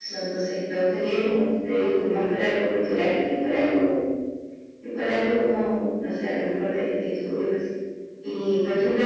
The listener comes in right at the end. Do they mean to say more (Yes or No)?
No